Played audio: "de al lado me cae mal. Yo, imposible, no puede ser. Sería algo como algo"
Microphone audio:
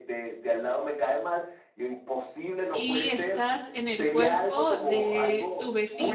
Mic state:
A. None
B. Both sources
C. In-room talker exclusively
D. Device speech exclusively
B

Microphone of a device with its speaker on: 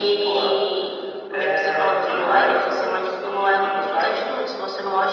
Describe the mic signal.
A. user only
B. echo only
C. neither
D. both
B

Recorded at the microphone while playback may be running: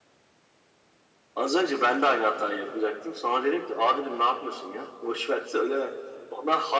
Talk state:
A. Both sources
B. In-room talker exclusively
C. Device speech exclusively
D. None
C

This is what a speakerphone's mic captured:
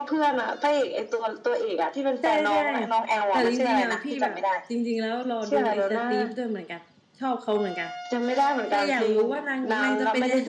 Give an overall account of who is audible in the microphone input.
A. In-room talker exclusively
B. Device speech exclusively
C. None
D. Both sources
D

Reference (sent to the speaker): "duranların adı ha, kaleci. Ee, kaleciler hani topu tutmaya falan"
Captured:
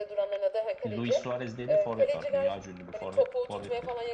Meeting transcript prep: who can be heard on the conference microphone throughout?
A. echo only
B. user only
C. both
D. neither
C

